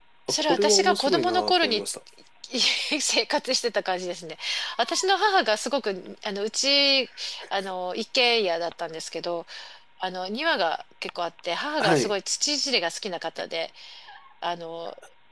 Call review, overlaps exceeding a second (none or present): present